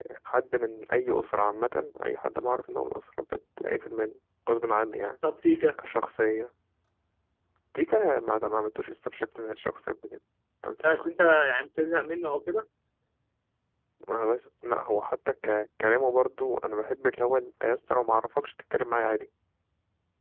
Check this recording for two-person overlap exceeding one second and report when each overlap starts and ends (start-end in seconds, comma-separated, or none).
none